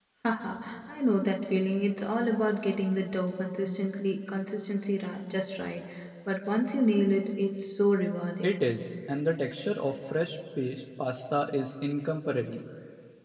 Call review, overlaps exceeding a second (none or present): none